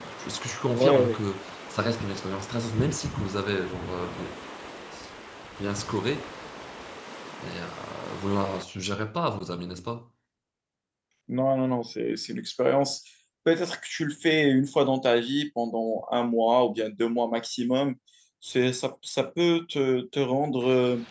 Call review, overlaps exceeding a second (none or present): none